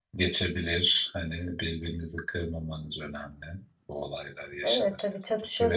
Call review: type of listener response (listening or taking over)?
taking over